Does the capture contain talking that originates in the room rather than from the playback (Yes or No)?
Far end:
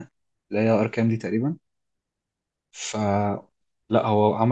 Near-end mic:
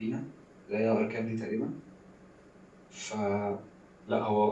No